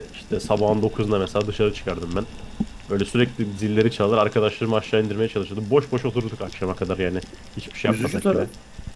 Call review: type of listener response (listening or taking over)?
taking over